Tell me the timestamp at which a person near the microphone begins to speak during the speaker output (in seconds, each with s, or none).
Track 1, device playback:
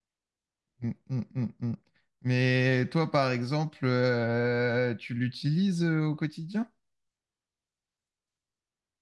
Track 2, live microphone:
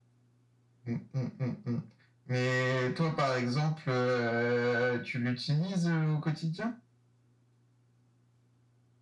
none